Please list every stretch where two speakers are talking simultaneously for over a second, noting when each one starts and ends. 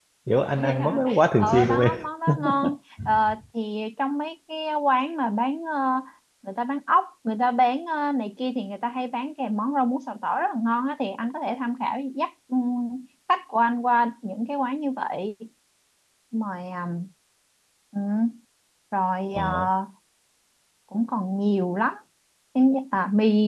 0.6-1.9

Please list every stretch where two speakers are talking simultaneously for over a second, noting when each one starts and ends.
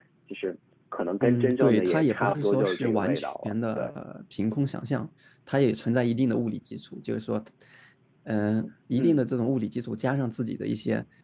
1.2-3.9

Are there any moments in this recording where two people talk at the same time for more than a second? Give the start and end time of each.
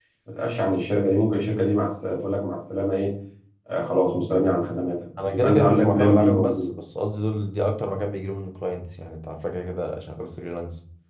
5.3-6.7

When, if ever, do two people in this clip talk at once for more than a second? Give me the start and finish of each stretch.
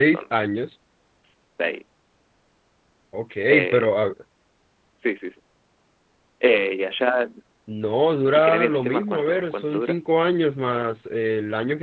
8.3-10.0

